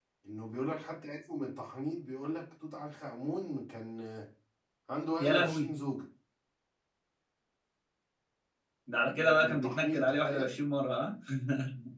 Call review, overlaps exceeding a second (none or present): present